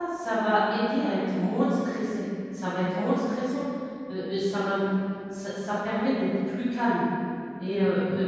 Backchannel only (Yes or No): Yes